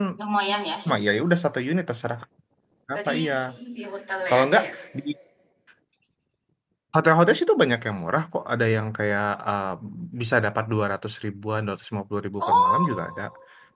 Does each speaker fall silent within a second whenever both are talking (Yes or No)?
Yes